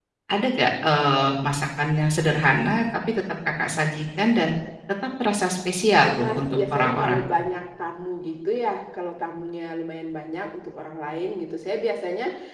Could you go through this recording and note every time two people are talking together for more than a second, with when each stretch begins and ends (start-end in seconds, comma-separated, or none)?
6.0-7.2